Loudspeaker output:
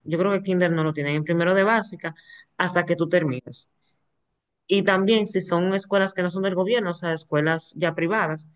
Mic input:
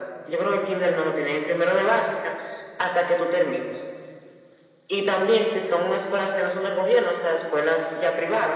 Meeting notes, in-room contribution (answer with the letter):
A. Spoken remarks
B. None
B